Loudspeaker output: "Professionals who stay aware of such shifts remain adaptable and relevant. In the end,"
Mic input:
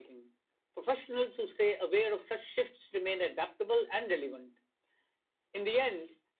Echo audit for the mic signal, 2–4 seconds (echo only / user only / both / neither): echo only